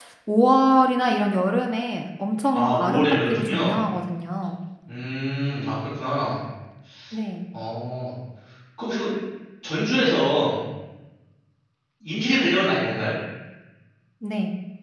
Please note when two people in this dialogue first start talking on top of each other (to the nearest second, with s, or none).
3 s